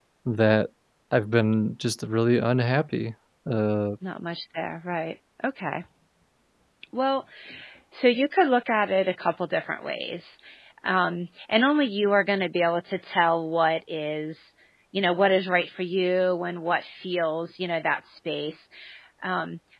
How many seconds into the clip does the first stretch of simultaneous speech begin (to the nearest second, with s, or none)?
none